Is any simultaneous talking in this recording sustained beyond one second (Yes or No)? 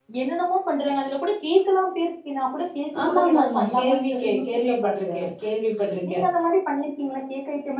Yes